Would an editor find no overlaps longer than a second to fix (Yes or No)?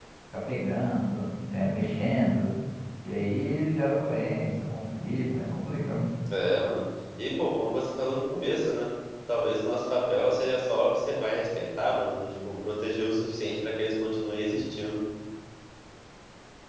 Yes